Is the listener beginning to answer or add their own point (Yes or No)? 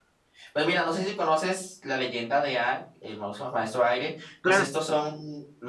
No